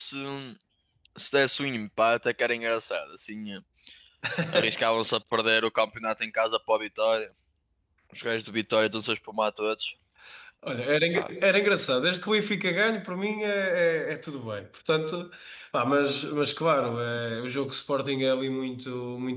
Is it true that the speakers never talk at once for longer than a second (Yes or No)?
Yes